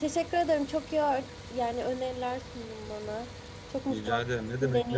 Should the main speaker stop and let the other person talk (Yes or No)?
Yes